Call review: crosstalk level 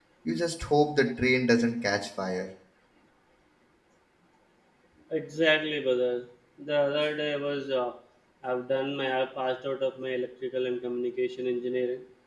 none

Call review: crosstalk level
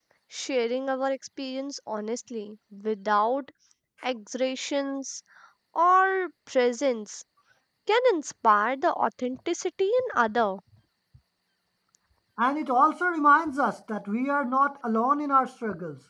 none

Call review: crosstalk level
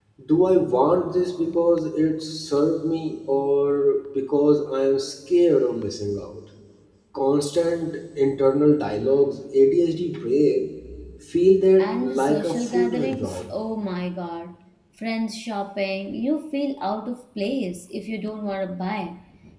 present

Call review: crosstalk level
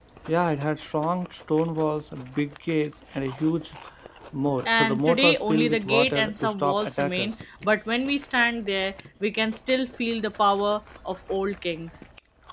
present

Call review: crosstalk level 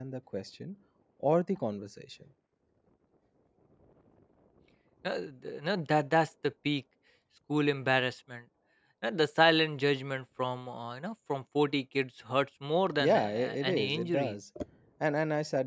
present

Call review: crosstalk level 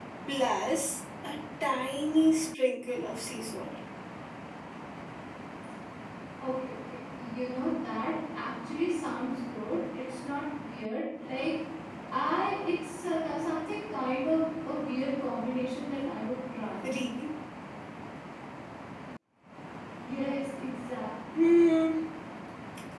none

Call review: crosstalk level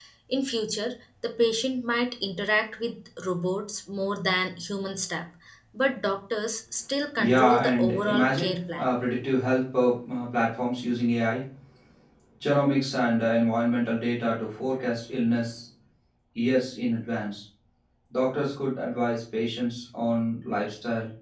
present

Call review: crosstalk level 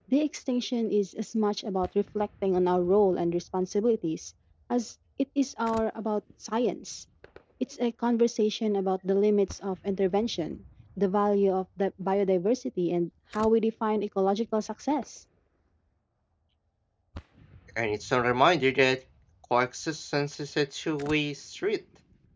none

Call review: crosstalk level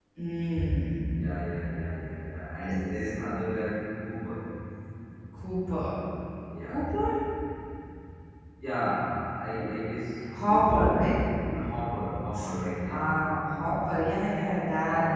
present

